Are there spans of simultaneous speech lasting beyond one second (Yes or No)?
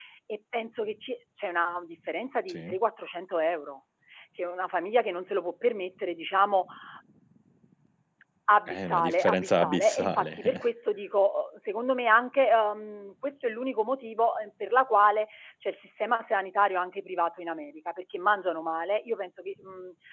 Yes